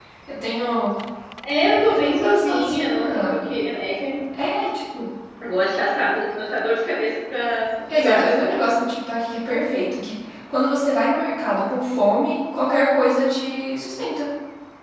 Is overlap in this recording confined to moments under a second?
No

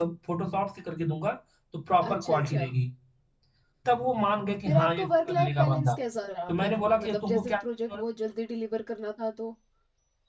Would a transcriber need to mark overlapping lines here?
Yes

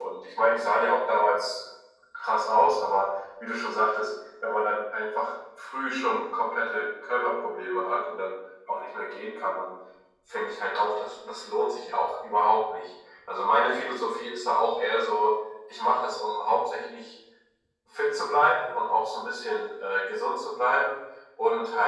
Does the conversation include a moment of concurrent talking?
No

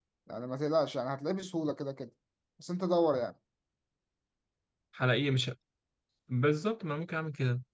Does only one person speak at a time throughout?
Yes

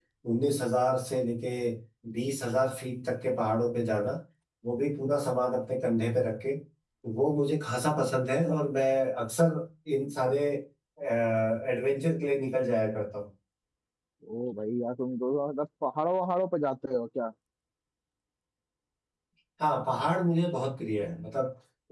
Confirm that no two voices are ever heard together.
Yes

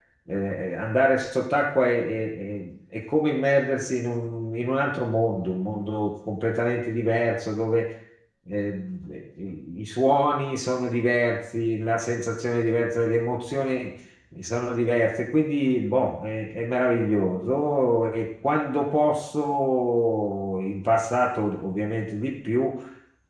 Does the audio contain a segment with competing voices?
No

